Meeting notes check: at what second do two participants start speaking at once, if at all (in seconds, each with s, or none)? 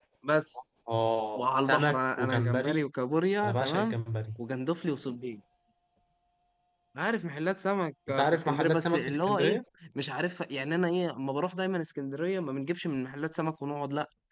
1.4 s